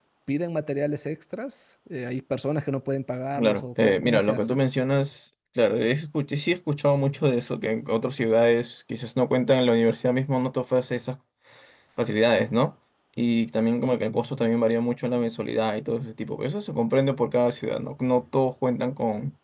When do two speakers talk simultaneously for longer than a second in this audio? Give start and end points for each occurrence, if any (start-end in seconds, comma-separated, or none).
3.4-4.6